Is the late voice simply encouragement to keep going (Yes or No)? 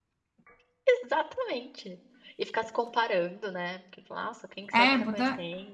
No